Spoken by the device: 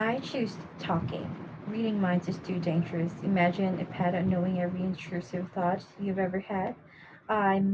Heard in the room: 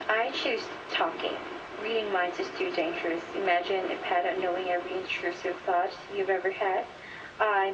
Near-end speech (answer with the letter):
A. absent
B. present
A